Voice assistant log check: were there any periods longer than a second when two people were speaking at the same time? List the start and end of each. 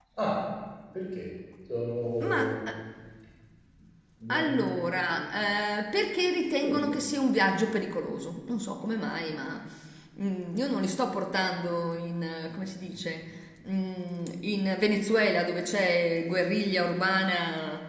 none

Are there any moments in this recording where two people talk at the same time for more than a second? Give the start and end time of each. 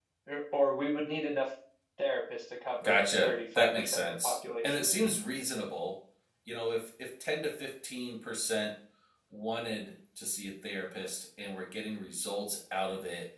2.8-4.8

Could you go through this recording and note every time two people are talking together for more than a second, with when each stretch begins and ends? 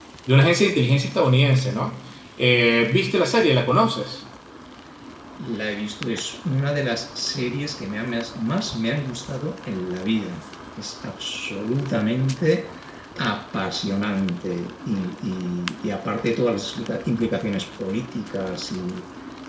none

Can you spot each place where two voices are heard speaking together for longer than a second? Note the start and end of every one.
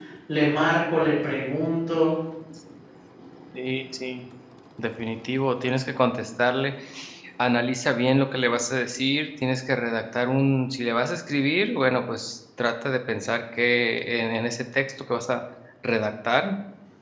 none

